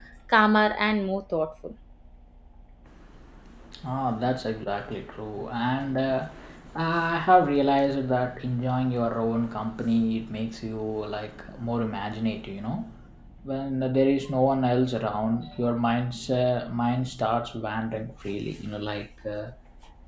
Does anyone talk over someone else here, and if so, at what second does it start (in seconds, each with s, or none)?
none